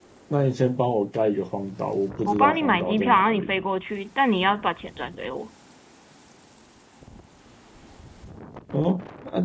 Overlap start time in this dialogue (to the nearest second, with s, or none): 2 s